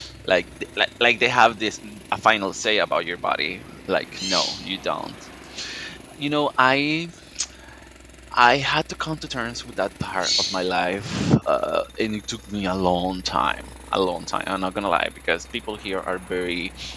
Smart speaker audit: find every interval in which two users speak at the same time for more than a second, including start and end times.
none

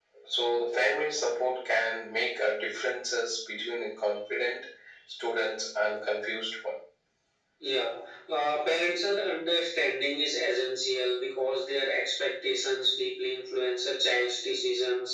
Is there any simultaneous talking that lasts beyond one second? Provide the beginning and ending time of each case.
none

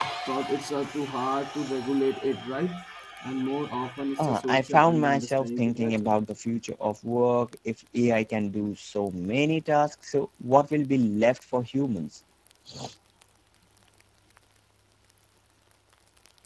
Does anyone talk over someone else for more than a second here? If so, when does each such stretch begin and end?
4.2-6.1

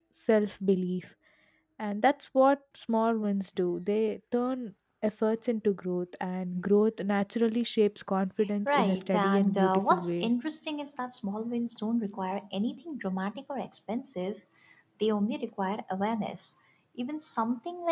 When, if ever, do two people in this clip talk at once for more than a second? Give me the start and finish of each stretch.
8.6-10.3

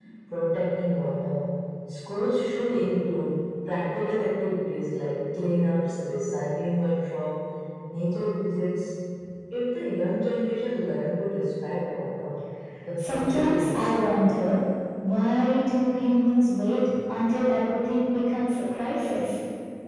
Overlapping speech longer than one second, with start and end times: 13.0-14.2

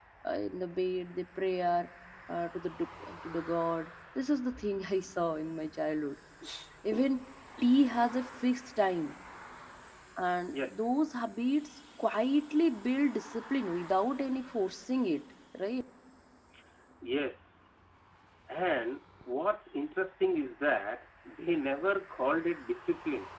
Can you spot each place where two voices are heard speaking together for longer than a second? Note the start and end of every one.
none

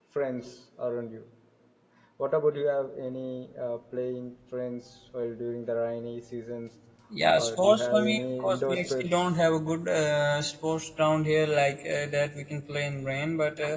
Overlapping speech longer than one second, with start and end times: 7.3-9.1

